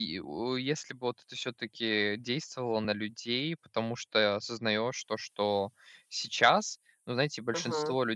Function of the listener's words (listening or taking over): listening